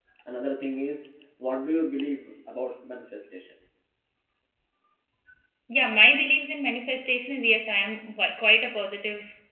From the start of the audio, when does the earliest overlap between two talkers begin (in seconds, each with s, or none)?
none